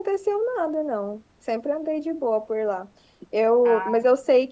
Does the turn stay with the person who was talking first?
Yes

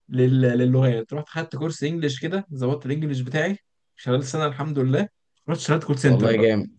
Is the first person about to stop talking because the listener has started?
Yes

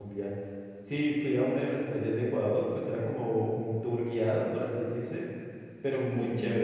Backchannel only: Yes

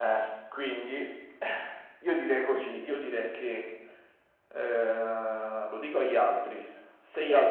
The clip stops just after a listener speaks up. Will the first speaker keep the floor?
Yes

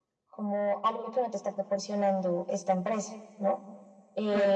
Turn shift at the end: No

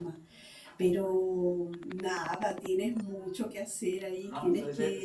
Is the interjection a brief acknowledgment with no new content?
No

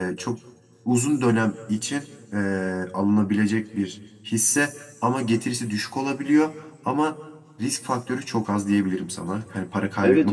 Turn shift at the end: Yes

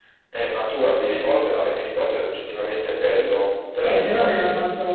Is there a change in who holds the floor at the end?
Yes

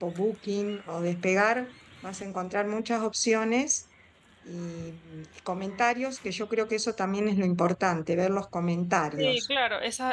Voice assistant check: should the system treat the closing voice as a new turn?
Yes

